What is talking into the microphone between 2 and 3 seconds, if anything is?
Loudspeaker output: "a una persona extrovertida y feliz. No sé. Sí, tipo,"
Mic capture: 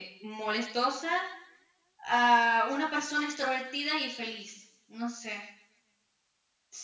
echo only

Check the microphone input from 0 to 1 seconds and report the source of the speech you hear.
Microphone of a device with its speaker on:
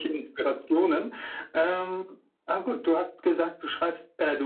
echo only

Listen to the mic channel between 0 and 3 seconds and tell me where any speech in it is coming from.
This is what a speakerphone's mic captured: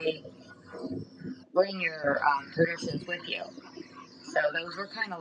echo only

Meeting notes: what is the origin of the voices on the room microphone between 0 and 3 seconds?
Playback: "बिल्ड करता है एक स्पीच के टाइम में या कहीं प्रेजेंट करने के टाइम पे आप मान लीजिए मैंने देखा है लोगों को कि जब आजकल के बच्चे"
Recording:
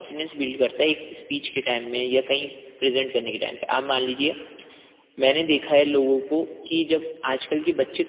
echo only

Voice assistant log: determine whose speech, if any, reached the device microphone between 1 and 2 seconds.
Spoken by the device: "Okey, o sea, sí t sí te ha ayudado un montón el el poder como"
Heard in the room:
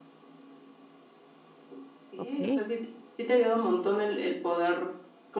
neither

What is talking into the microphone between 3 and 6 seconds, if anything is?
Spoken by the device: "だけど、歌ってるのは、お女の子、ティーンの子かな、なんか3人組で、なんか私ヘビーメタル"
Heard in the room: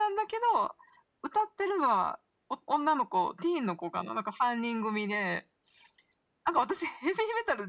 echo only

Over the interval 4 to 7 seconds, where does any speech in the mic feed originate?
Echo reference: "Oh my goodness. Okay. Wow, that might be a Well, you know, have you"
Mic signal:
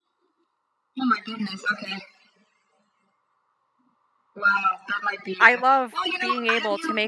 both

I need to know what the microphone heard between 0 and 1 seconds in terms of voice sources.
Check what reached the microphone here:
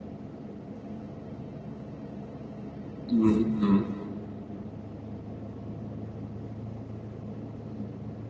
neither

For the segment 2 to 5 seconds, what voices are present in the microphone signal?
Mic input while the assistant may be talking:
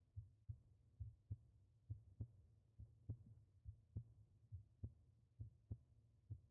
neither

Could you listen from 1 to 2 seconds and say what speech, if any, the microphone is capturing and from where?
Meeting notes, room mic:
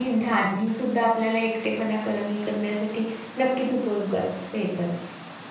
user only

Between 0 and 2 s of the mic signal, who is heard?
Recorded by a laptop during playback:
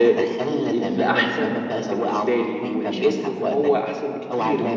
both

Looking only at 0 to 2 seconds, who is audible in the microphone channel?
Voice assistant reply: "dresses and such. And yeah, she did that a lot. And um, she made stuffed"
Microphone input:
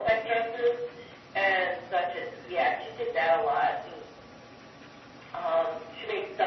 echo only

